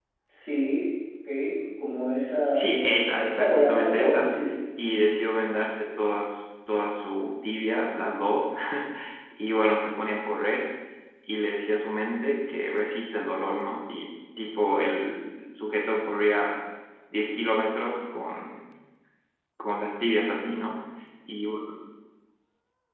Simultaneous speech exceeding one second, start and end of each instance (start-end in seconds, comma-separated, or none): 2.5-4.3